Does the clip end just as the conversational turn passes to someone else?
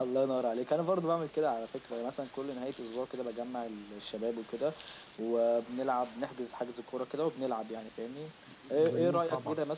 No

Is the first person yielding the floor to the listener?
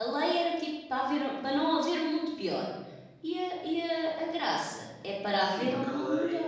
Yes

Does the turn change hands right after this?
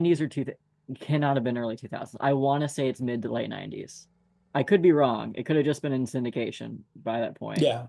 Yes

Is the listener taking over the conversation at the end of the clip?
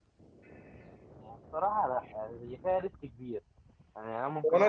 Yes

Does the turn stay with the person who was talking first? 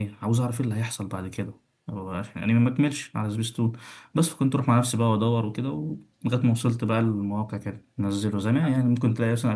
Yes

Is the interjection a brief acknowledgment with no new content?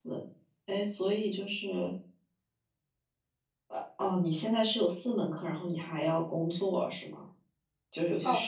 No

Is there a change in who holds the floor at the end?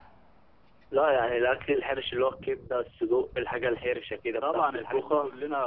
Yes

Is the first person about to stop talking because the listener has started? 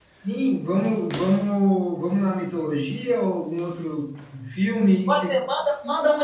Yes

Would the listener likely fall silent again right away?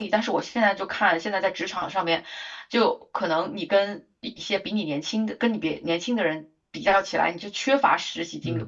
Yes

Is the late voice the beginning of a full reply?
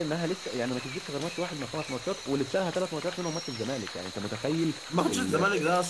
Yes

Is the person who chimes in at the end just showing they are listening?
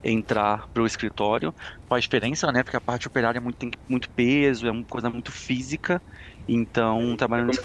No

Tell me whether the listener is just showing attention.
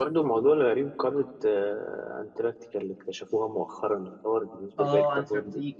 No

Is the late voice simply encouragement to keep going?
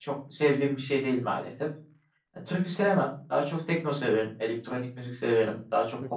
Yes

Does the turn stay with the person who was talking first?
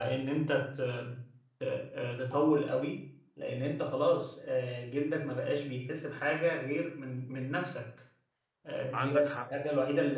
Yes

